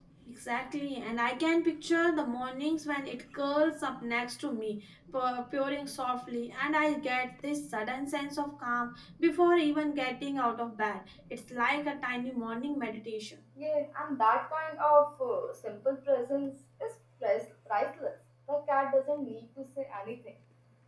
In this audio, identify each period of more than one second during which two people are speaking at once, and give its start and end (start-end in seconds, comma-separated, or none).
none